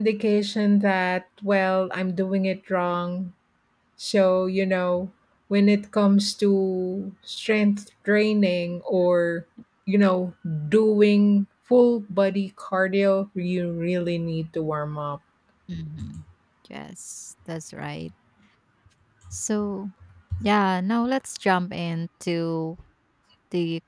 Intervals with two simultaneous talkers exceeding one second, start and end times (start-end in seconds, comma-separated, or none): none